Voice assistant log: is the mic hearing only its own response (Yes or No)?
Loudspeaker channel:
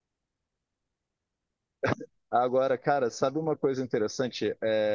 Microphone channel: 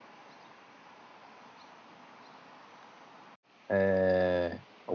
No